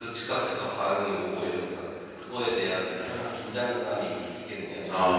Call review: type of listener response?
taking over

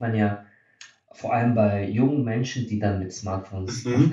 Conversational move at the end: listening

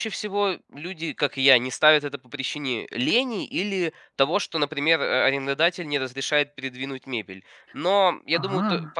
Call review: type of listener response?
listening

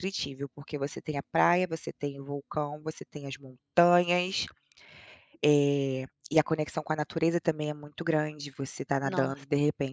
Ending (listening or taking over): listening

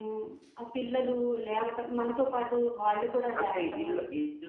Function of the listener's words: taking over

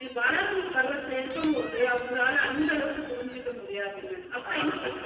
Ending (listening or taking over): taking over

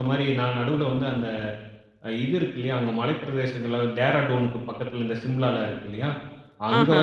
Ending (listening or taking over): listening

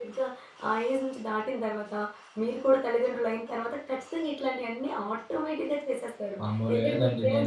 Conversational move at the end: taking over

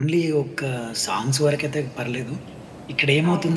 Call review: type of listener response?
listening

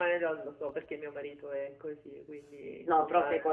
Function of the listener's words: taking over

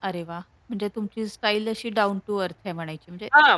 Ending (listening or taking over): taking over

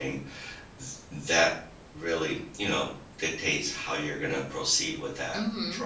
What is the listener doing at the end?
taking over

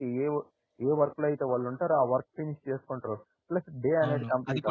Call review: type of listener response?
taking over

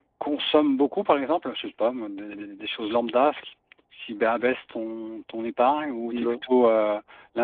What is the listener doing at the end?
listening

